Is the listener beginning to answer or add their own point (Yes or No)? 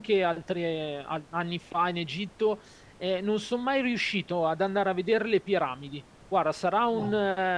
No